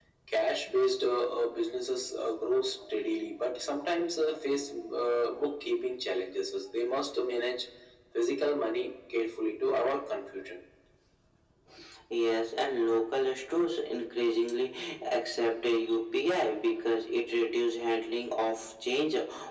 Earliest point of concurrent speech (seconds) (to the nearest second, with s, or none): none